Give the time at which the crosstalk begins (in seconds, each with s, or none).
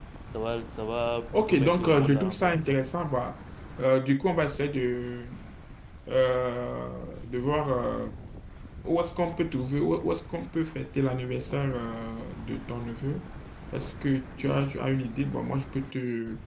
1.3 s